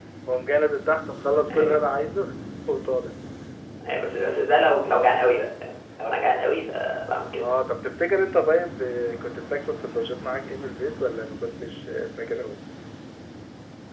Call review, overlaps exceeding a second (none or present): none